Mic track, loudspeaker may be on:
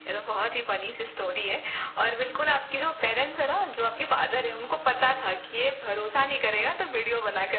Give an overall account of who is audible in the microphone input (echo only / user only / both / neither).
echo only